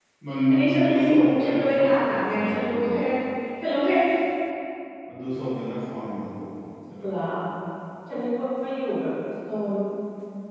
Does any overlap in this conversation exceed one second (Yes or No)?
Yes